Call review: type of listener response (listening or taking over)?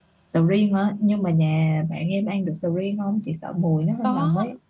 taking over